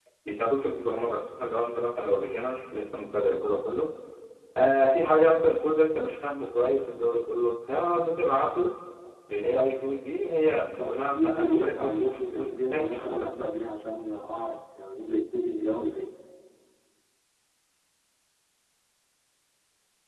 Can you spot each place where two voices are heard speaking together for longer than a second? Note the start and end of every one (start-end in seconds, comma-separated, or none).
10.8-13.3